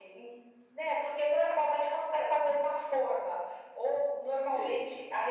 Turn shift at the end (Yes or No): No